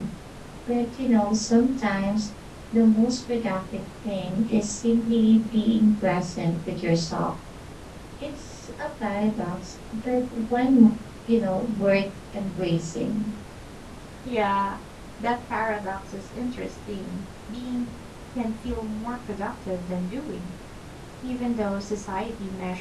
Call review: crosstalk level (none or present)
none